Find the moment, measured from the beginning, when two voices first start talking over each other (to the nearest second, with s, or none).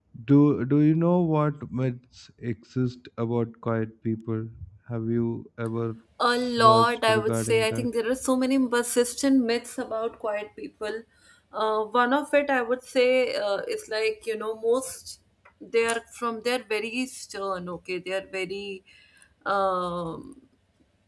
7 s